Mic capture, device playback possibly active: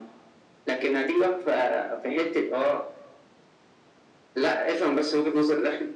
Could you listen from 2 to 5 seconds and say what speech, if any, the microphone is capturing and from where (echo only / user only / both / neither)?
echo only